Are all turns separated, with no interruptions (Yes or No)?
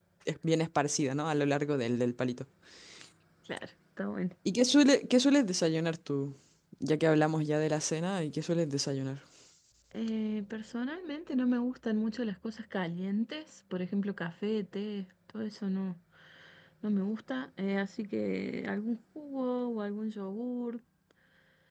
Yes